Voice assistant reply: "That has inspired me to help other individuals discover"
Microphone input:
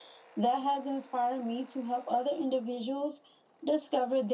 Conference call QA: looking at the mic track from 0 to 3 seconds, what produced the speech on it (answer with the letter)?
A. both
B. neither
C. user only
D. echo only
D